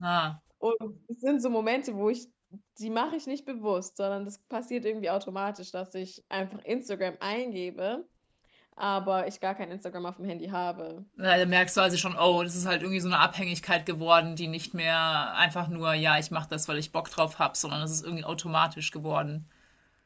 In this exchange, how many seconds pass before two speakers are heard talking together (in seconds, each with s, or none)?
none